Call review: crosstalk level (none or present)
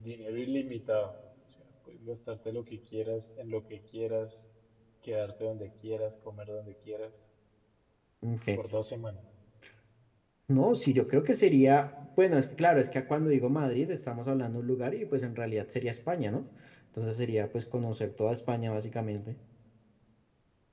none